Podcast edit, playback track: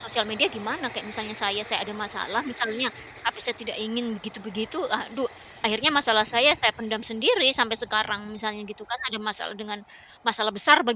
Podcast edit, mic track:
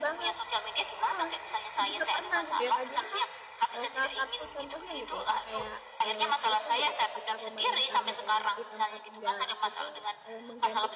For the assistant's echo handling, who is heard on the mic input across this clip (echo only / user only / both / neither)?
both